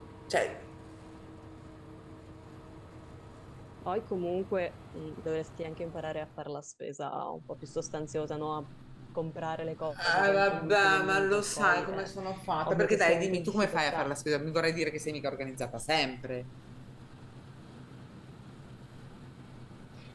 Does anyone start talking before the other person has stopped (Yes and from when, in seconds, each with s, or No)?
Yes, from 10.0 s